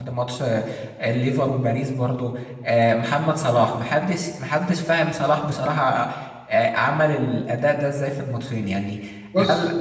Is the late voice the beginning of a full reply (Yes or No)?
No